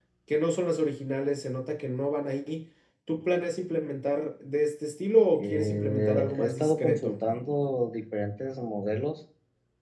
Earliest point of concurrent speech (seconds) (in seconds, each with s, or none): 5.3 s